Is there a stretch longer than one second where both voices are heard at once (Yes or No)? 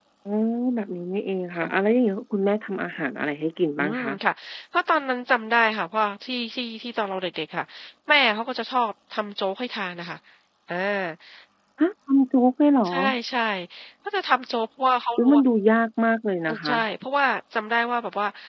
No